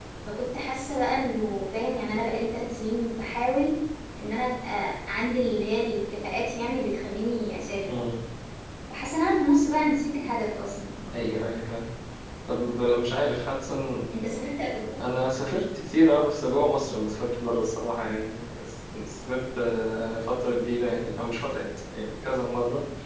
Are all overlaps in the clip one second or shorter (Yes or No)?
Yes